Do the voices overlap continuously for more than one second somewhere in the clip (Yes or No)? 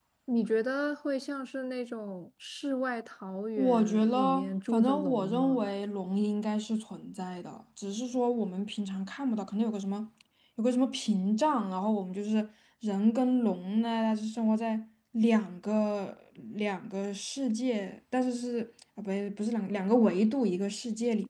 Yes